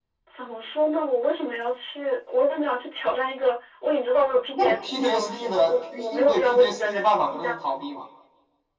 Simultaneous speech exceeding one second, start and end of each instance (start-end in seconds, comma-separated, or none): 4.5-7.5